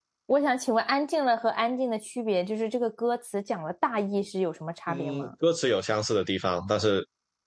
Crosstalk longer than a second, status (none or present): none